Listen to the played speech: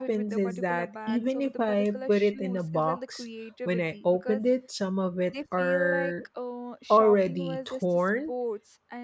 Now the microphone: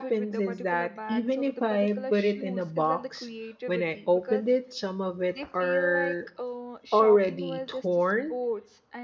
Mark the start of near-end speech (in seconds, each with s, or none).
none